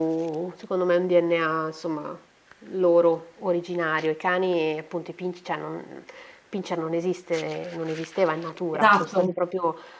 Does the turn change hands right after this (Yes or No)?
No